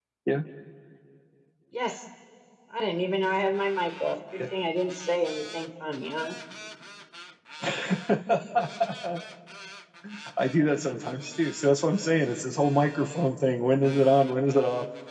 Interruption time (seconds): none

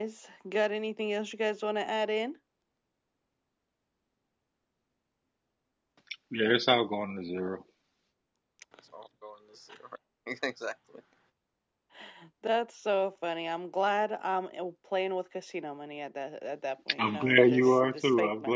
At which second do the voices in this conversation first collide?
16.9 s

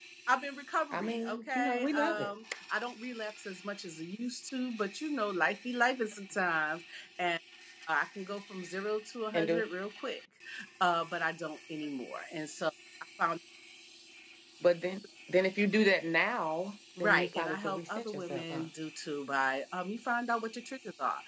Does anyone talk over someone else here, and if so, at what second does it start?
0.9 s

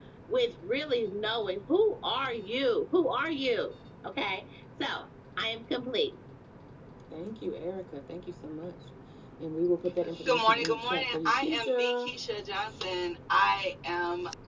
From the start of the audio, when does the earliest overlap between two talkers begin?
10.2 s

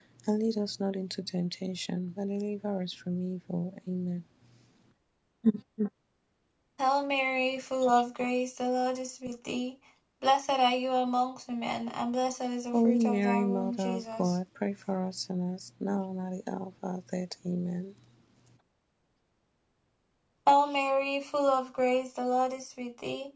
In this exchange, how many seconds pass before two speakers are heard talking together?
12.7 s

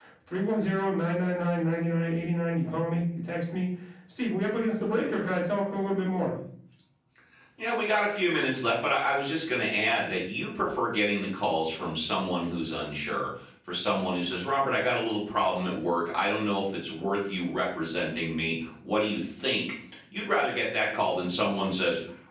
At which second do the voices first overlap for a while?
none

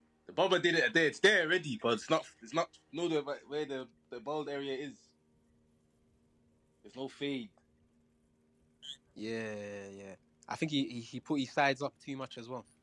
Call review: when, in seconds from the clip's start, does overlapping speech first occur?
none

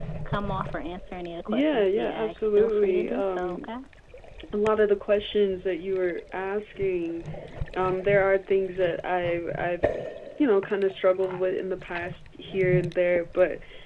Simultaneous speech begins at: 1.5 s

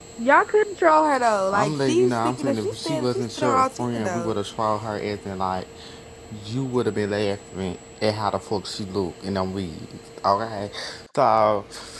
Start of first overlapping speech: 1.5 s

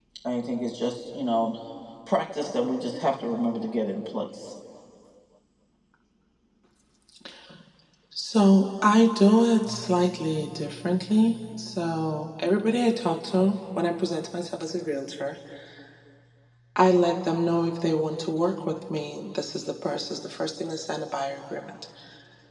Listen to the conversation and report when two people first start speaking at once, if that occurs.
none

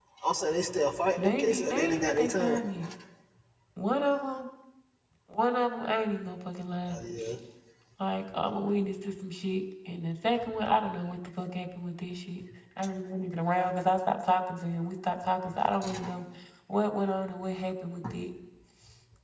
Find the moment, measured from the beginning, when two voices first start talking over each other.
1.2 s

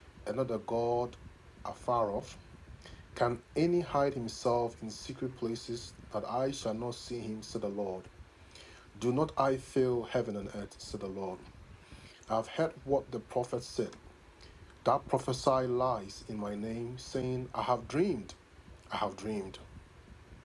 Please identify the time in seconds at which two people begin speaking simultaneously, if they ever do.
none

